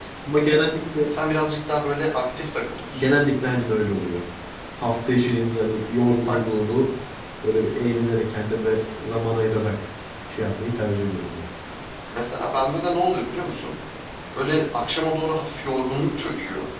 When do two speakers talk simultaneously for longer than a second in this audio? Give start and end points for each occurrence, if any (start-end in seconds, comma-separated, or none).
none